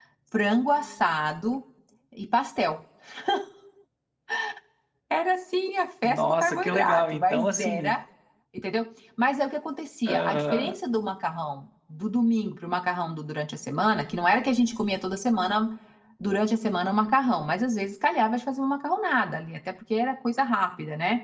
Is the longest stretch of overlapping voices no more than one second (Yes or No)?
No